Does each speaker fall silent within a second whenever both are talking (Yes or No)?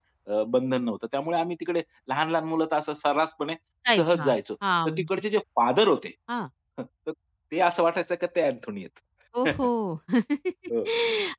Yes